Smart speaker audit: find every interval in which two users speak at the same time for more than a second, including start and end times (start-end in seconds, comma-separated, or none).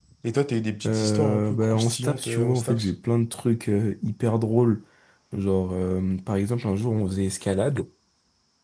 0.9-2.9